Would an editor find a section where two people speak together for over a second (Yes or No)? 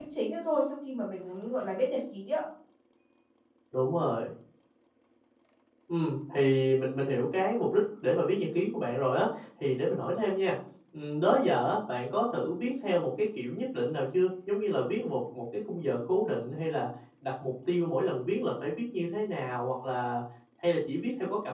No